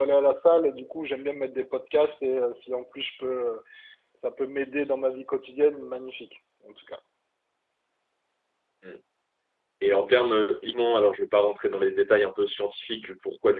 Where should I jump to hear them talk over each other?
none

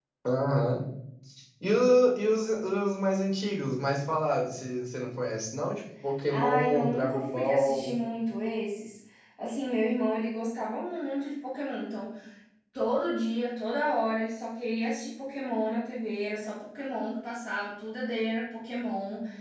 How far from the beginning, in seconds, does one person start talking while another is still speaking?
6.3 s

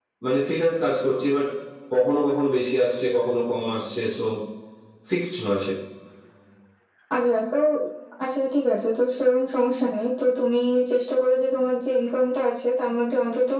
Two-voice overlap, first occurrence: none

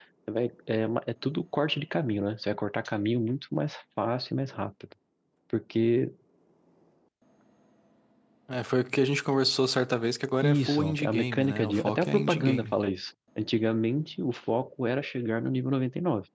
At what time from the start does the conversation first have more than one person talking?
10.4 s

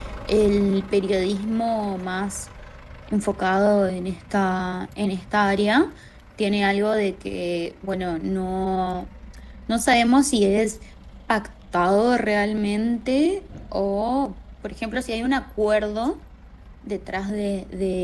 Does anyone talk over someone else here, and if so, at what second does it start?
none

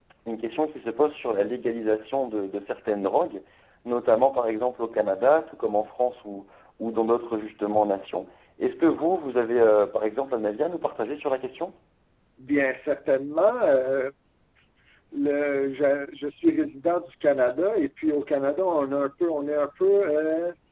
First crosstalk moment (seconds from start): none

